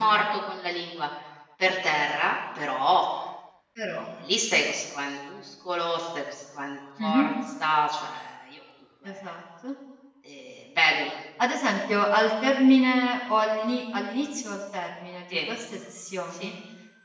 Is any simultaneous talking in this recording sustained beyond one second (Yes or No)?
No